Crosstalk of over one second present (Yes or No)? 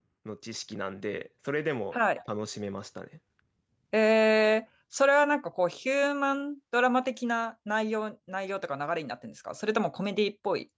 No